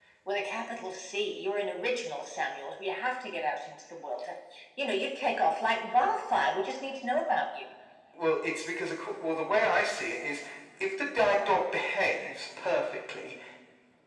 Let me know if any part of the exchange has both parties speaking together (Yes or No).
No